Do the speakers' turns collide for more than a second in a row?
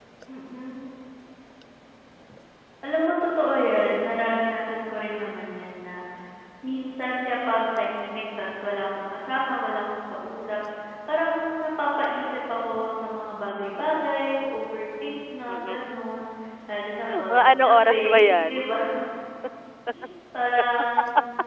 Yes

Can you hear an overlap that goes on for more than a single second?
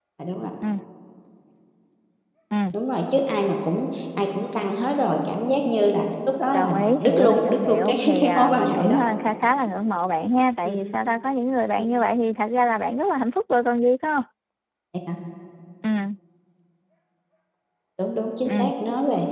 Yes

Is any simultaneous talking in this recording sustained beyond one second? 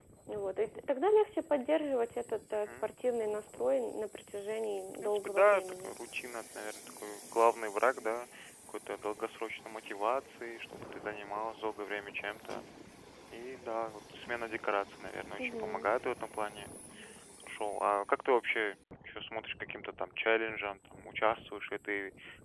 Yes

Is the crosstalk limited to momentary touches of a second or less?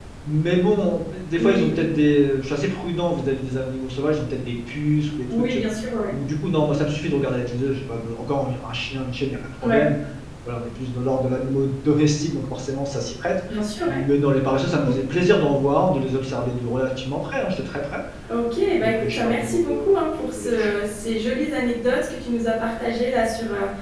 No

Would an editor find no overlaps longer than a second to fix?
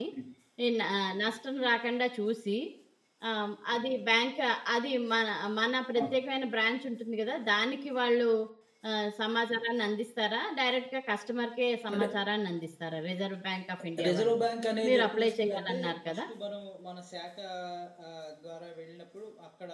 No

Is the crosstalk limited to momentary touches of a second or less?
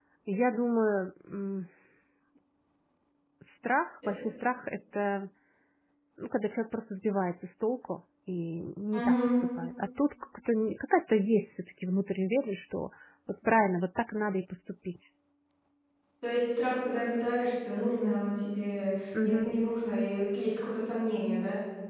Yes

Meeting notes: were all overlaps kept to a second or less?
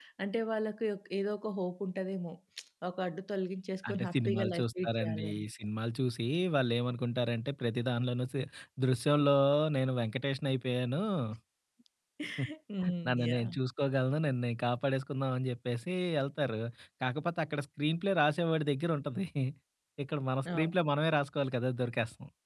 No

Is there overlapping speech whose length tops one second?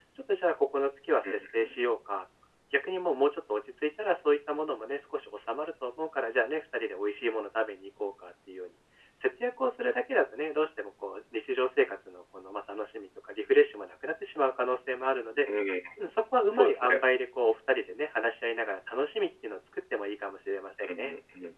No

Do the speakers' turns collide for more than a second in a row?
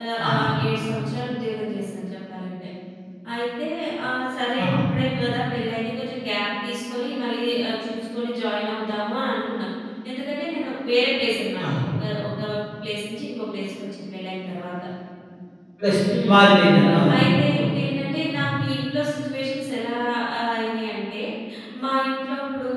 No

